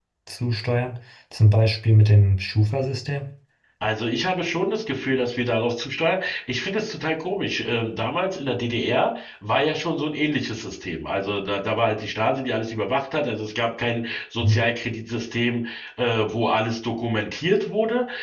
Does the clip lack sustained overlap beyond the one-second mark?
Yes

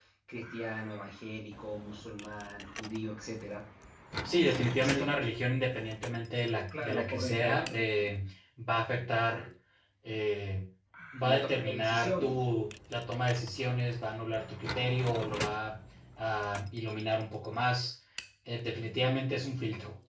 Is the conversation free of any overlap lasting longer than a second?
No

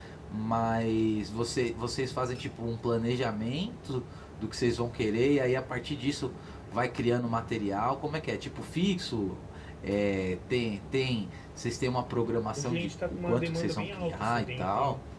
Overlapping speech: Yes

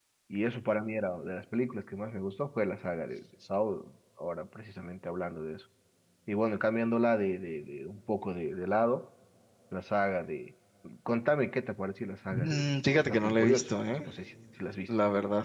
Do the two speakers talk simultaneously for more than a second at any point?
Yes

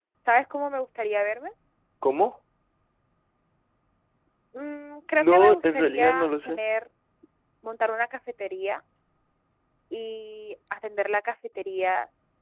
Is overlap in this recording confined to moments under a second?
No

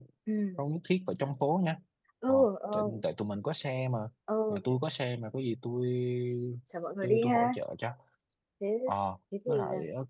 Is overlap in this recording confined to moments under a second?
Yes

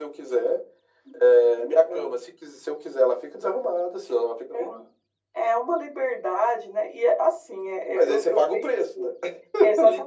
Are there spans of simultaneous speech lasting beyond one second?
Yes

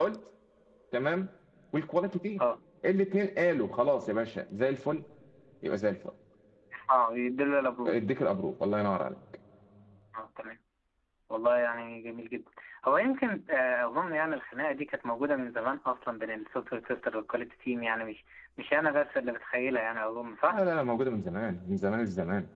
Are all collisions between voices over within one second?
Yes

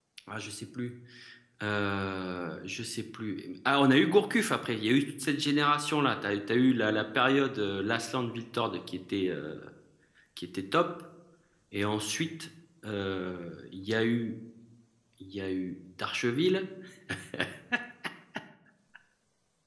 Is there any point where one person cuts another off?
No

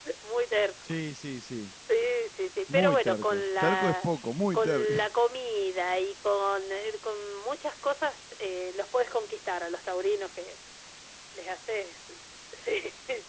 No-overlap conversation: No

